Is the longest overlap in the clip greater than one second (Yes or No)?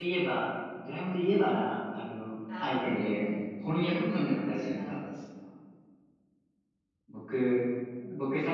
Yes